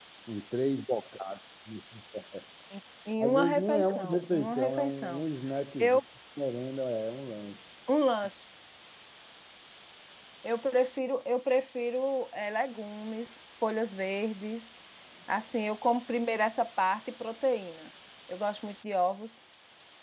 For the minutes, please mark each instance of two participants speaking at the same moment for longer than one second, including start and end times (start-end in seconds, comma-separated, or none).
3.2-5.2